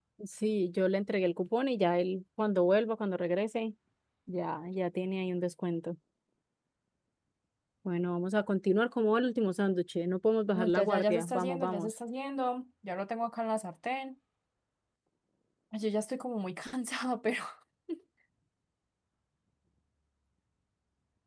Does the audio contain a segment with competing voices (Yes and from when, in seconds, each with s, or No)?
Yes, from 10.6 s